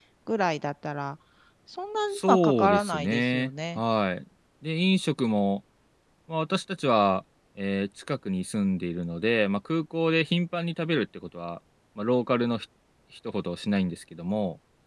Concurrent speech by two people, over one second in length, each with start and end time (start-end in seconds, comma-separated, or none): 2.1-3.8